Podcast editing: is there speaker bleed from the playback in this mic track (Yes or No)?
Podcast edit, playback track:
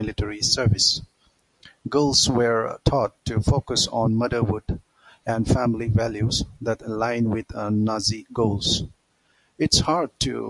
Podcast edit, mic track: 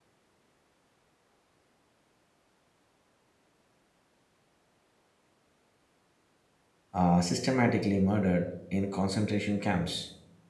No